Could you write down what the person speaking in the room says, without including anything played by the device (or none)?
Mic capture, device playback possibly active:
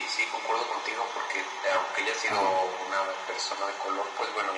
Ajá.